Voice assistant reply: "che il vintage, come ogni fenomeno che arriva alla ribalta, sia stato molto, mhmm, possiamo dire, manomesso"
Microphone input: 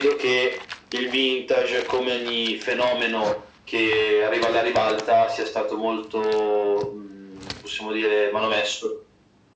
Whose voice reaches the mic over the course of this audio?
echo only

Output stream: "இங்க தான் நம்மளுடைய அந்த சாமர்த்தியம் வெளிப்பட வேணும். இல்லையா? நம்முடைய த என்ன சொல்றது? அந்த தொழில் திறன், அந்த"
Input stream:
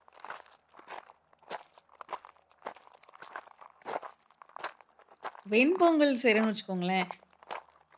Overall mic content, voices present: user only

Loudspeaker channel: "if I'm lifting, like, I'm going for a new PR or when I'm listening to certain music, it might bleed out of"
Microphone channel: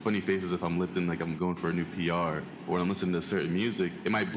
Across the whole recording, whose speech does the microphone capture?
echo only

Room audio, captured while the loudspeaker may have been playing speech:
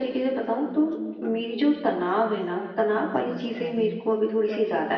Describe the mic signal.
both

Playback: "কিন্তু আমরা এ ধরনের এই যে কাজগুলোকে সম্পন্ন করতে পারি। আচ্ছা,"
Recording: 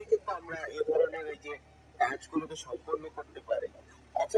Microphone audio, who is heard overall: echo only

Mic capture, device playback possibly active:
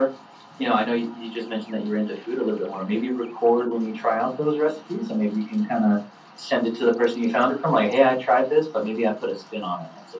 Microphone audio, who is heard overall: echo only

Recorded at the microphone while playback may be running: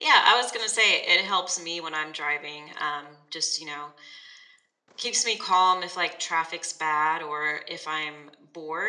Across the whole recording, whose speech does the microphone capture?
user only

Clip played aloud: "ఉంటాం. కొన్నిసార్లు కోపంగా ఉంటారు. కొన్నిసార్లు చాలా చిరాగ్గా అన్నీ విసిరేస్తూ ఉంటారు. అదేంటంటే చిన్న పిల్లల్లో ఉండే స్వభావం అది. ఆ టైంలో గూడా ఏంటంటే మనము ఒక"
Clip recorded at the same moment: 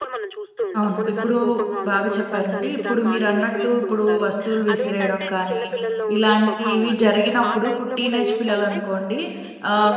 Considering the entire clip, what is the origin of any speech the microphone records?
both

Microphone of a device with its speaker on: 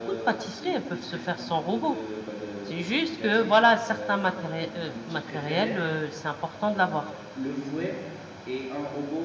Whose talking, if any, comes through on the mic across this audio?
both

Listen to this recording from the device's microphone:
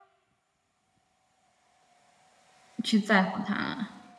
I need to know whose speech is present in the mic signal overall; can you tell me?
user only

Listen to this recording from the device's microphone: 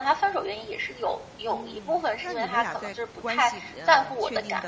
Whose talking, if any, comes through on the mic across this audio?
both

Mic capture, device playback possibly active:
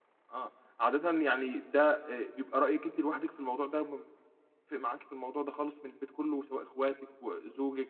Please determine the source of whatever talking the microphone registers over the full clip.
user only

